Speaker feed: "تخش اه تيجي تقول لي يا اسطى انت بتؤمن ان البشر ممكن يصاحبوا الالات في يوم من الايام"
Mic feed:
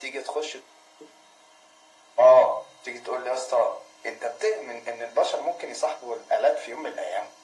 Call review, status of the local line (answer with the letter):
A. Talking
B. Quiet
B